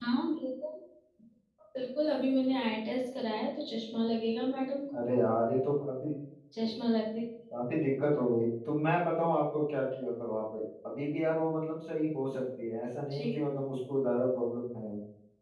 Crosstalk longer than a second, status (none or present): none